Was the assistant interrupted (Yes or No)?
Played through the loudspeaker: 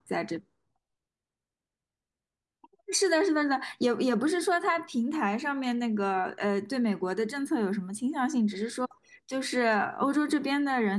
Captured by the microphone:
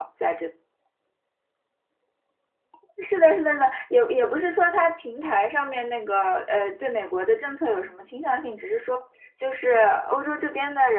No